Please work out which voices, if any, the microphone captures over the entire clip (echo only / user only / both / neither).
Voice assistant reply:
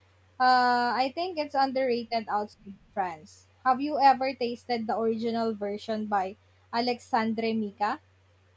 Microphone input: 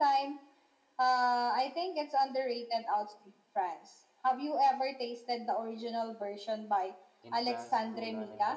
both